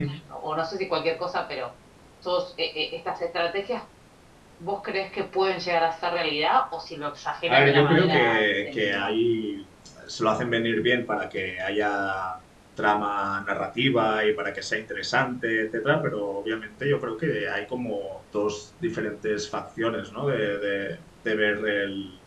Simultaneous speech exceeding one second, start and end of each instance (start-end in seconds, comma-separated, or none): 7.5-9.1